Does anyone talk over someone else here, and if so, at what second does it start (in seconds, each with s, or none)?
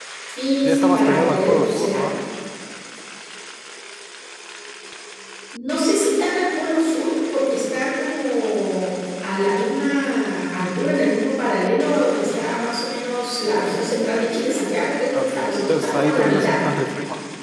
0.6 s